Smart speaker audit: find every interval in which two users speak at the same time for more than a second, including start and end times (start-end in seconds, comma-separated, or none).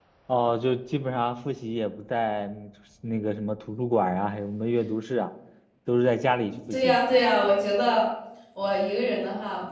none